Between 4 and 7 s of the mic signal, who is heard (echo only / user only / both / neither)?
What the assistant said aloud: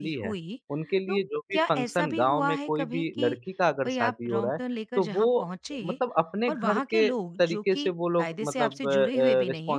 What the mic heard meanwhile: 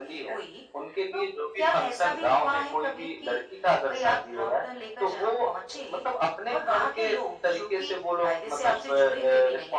echo only